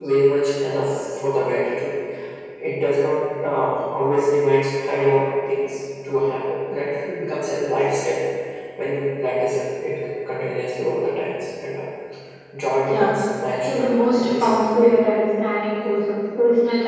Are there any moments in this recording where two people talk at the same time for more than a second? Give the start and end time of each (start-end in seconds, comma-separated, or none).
13.7-14.9